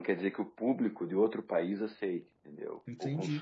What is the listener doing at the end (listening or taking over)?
taking over